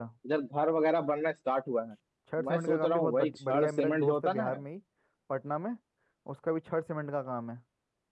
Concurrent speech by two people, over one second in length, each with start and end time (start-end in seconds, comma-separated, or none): 2.5-4.5